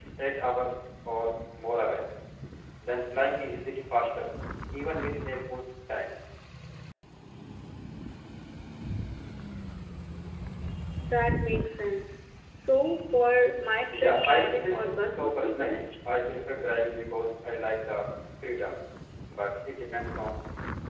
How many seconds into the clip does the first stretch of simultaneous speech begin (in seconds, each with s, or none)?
13.9 s